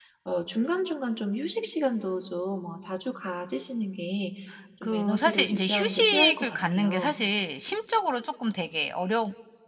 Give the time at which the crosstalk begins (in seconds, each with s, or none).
4.8 s